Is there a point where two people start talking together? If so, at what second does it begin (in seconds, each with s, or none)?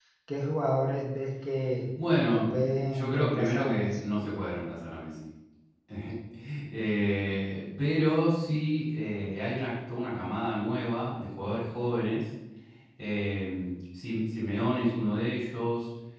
2.3 s